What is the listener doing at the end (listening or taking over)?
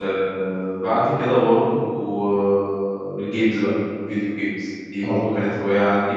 listening